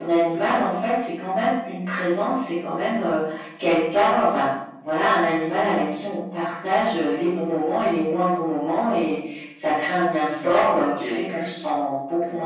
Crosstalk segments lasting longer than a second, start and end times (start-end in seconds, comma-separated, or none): 10.4-11.6